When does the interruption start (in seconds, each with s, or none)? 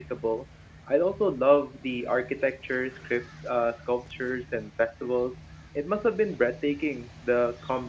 none